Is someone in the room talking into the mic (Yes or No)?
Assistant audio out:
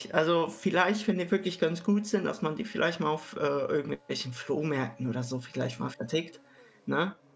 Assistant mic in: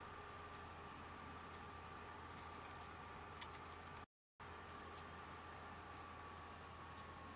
No